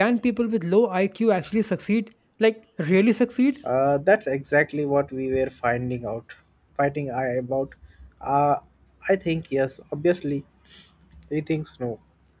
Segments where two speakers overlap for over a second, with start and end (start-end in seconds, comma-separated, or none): none